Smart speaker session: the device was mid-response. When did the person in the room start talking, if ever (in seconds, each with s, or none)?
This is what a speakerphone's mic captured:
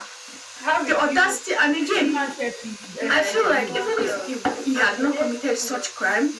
1.9 s